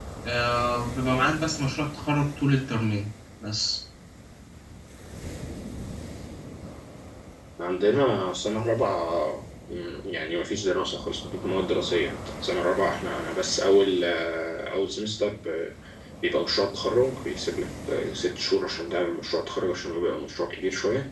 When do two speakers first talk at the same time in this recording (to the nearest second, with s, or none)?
none